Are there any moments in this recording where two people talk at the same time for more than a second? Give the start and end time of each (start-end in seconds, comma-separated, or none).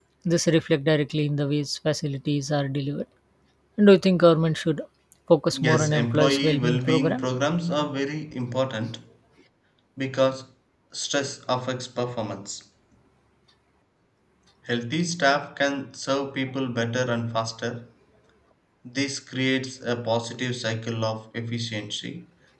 5.5-7.2